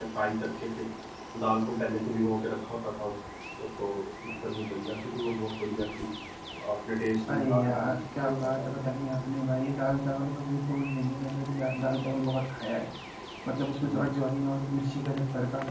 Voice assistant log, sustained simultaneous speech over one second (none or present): present